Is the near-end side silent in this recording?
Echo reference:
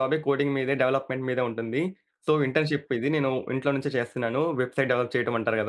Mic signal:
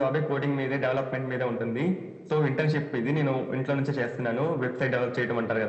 Yes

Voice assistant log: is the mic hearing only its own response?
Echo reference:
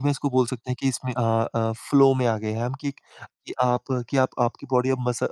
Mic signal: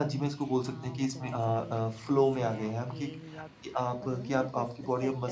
No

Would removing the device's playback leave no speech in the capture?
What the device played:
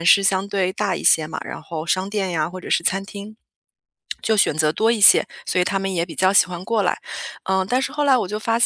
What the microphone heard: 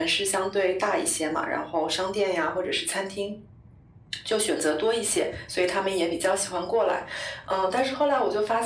Yes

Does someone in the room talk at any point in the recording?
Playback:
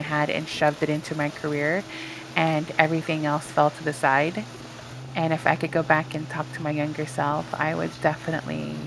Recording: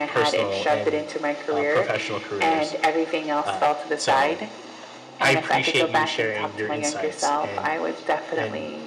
Yes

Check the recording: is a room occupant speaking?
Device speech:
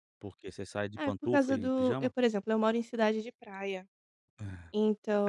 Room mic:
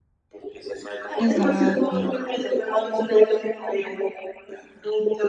Yes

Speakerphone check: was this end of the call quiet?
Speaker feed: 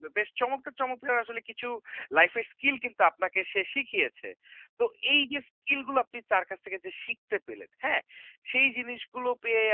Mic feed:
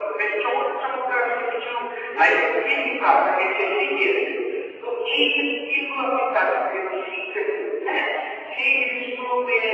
Yes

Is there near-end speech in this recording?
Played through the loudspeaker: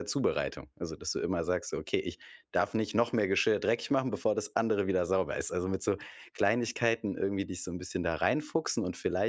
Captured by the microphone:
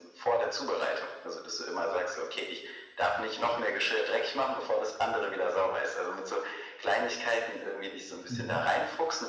Yes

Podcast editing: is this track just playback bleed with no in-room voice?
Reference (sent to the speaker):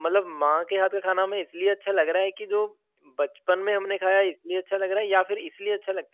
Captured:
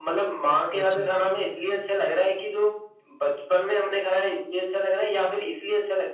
No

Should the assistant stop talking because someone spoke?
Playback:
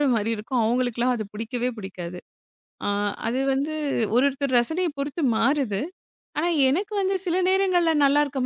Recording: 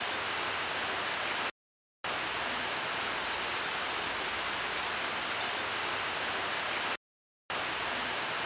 No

